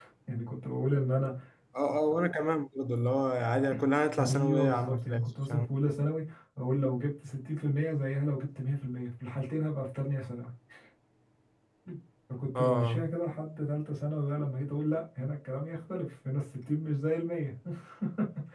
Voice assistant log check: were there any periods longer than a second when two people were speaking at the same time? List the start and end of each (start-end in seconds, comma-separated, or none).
4.2-5.7